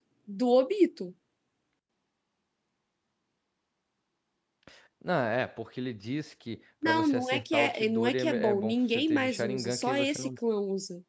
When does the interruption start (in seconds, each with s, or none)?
6.8 s